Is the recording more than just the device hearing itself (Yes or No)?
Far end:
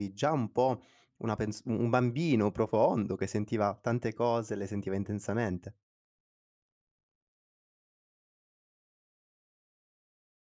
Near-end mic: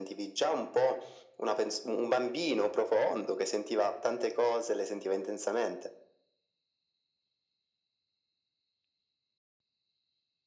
No